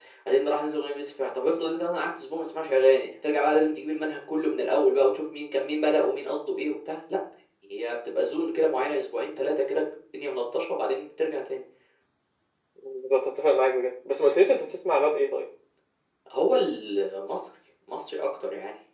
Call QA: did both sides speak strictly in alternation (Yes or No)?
Yes